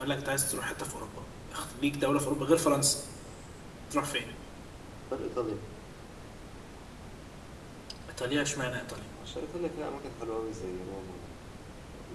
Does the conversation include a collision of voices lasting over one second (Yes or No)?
No